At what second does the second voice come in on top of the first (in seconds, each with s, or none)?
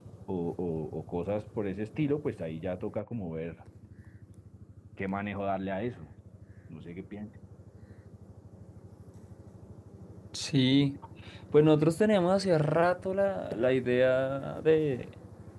none